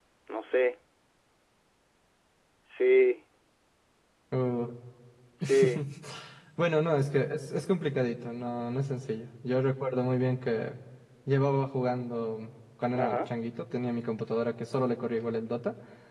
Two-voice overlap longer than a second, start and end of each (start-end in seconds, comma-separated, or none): none